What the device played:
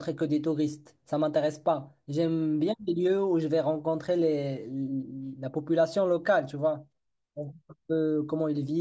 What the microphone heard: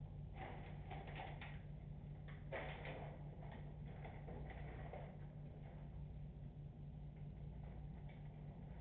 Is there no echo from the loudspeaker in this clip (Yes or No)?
Yes